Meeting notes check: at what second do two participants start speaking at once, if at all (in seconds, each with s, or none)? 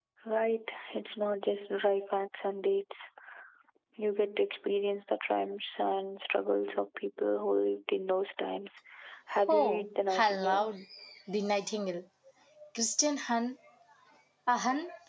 9.5 s